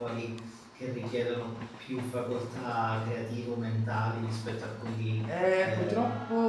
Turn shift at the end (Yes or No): Yes